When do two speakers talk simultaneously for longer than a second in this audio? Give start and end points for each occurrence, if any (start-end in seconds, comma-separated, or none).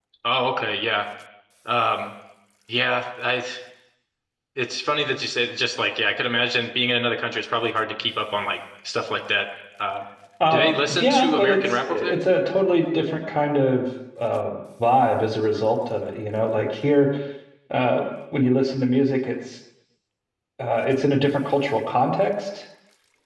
10.5-12.1